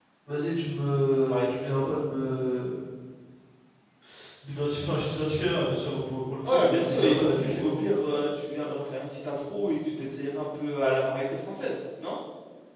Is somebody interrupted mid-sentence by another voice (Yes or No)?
Yes